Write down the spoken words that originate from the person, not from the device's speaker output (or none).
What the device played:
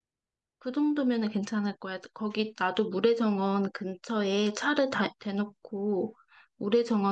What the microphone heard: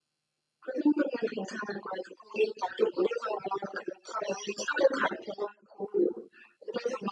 none